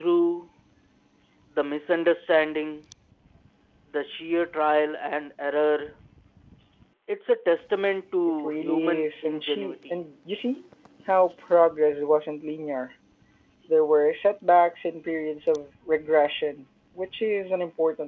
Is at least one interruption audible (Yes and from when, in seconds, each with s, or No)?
Yes, from 8.4 s